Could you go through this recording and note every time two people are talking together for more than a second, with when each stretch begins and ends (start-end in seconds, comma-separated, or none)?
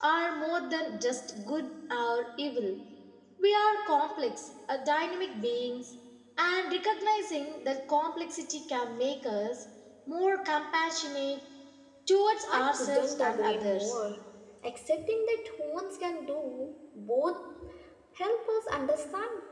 12.5-14.0